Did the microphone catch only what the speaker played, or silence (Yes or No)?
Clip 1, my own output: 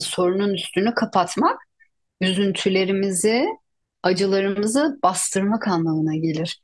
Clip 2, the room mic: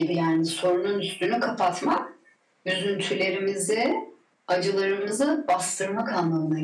Yes